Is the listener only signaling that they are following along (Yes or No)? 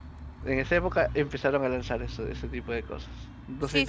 No